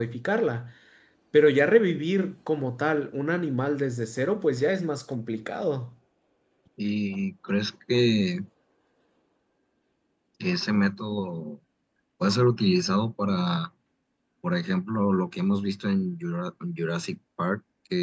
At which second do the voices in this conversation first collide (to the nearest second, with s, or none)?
none